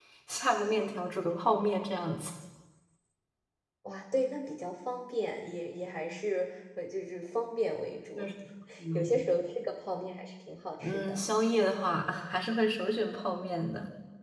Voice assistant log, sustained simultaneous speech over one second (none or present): none